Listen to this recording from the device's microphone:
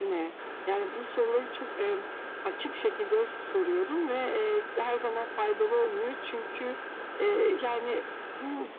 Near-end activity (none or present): none